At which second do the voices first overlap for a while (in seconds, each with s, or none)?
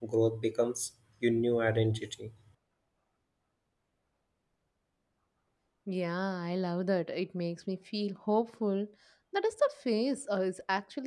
none